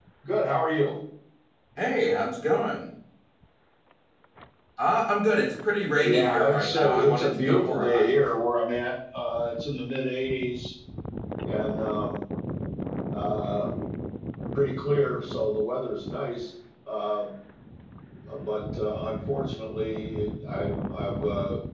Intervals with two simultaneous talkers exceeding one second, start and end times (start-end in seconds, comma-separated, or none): 5.8-8.1